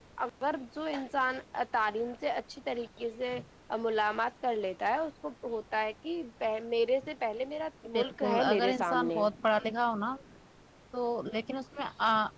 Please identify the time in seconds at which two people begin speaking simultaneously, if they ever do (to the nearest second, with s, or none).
8 s